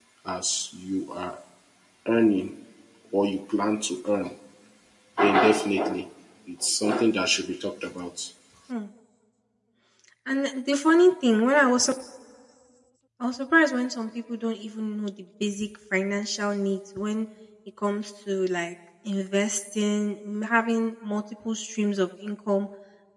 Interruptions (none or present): none